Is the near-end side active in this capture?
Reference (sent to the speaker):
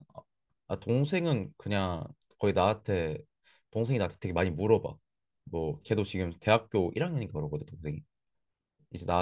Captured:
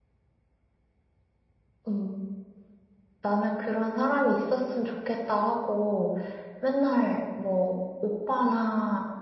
Yes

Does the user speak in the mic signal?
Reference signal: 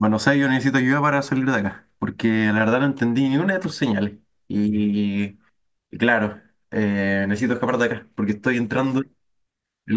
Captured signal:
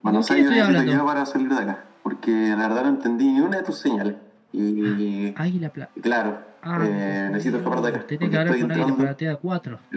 Yes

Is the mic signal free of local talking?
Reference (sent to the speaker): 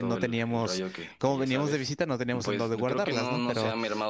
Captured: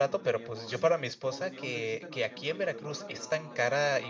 No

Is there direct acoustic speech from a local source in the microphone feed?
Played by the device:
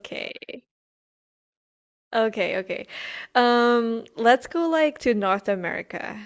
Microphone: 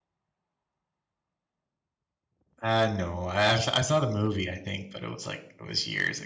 Yes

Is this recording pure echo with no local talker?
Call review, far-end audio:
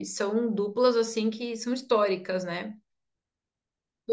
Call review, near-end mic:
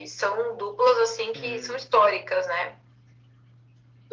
No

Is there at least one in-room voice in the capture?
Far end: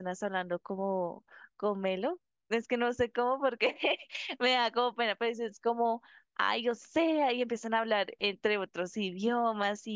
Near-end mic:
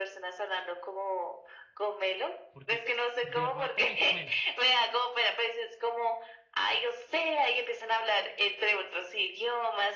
Yes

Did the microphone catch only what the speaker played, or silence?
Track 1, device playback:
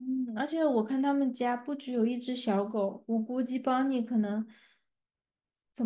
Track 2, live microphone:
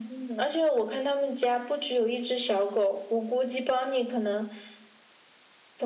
Yes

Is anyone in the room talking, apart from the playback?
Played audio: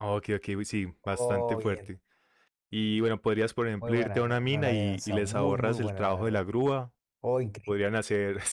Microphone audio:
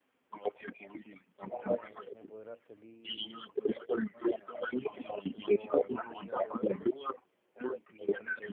Yes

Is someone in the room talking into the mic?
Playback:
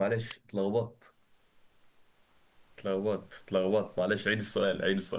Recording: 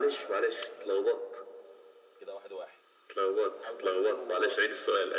Yes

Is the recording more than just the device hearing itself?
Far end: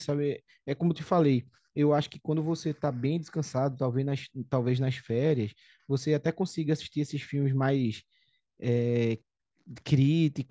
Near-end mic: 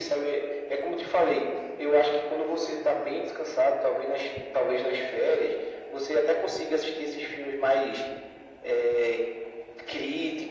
No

